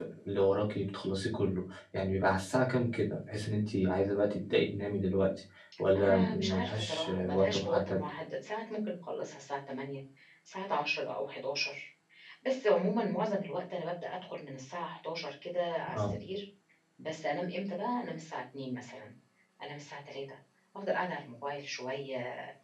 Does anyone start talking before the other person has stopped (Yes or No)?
Yes